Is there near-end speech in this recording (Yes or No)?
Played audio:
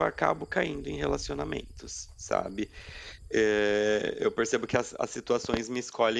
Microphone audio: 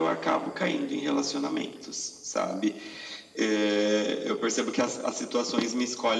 No